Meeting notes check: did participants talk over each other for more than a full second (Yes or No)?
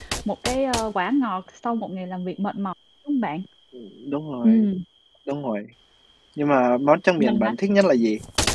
No